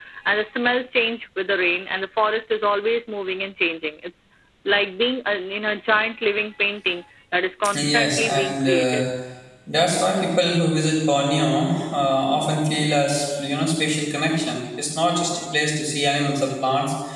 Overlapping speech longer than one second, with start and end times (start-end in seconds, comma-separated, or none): 7.7-9.0